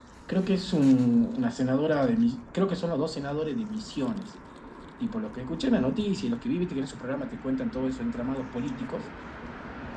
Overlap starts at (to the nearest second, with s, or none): none